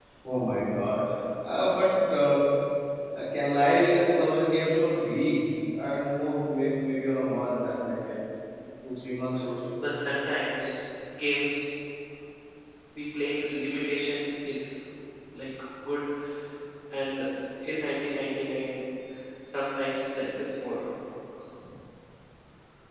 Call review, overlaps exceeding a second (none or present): none